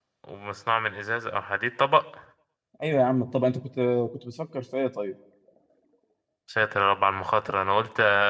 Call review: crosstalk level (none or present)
none